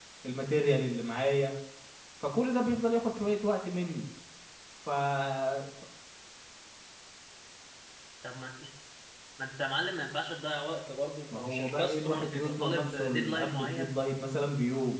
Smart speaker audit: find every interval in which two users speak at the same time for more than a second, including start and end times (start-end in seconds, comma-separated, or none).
11.3-13.9